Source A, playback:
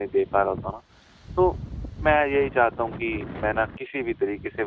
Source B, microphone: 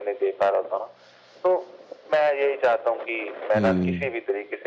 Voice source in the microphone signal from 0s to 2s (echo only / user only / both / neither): echo only